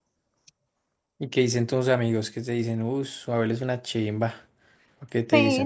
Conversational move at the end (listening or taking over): taking over